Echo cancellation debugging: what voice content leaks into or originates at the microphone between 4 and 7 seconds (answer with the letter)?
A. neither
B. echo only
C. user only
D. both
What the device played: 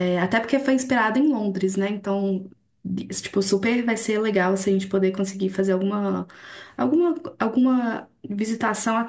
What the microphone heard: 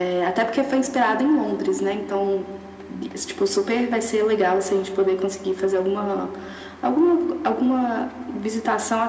B